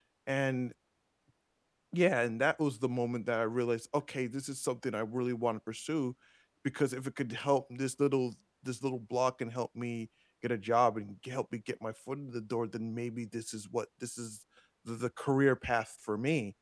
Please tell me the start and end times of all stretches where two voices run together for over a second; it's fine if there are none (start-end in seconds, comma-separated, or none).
none